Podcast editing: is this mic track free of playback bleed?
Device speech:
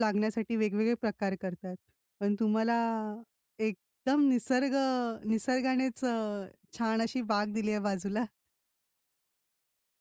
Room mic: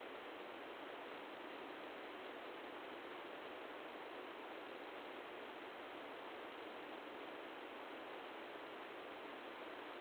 Yes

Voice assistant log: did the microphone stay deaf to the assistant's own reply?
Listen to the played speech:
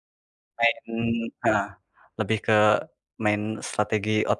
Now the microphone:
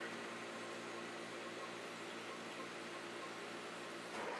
Yes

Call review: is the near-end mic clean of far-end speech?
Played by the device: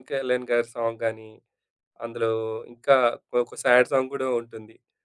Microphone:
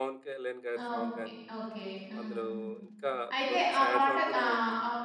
No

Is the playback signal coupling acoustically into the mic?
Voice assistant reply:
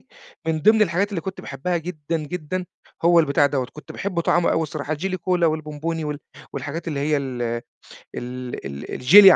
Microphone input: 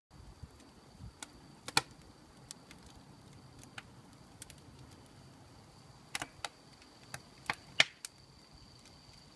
No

